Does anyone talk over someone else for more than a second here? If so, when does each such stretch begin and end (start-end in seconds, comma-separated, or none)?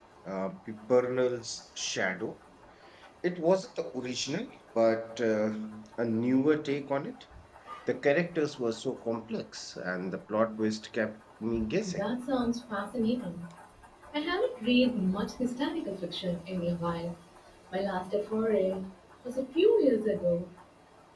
none